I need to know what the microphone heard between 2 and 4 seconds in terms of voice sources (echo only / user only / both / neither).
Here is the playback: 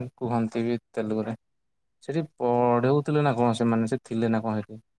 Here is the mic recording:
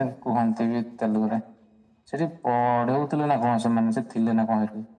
echo only